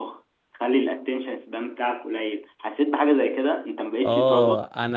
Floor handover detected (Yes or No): Yes